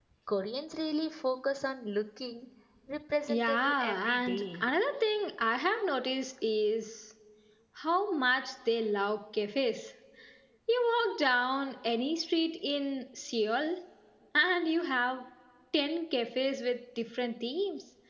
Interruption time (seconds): 3.3 s

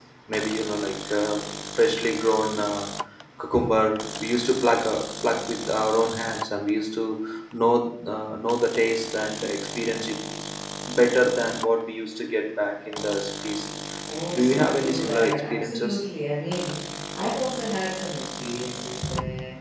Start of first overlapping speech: 14.3 s

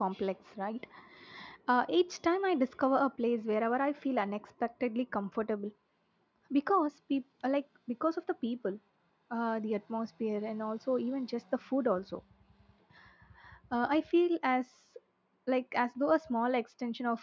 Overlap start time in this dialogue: none

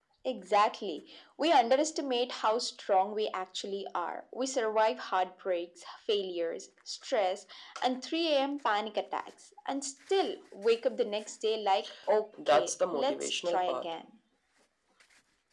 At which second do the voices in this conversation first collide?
12.4 s

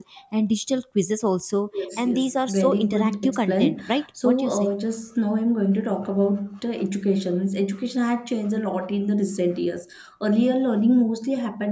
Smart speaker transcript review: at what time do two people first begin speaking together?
1.7 s

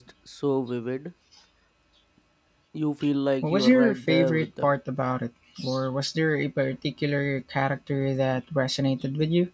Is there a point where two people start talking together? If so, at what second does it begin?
3.4 s

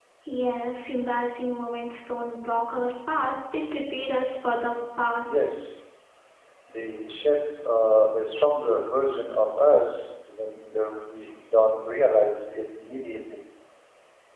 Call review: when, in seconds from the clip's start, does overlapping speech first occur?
none

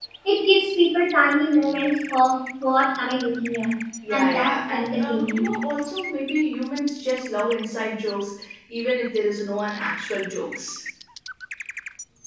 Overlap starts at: 4.0 s

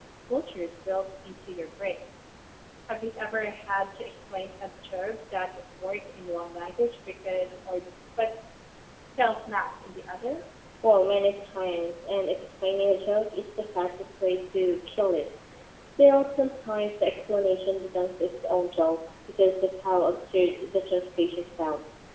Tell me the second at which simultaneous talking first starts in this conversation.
none

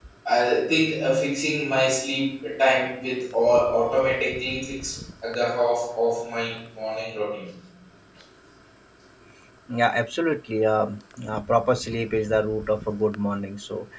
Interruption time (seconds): none

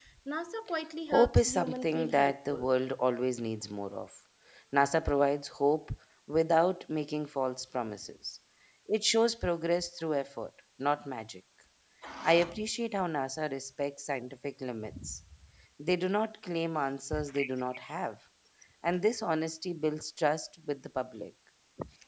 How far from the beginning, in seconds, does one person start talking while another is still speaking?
1.1 s

